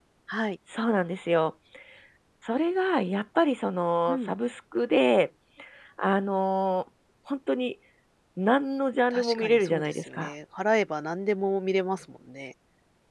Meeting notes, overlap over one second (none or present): present